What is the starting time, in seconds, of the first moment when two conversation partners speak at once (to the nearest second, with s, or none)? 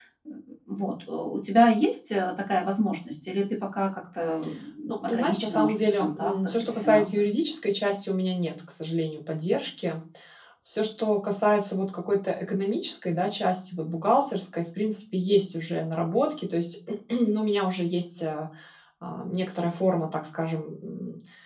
5 s